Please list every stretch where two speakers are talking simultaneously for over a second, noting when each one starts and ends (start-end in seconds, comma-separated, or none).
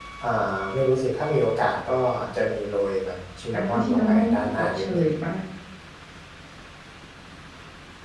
3.5-5.0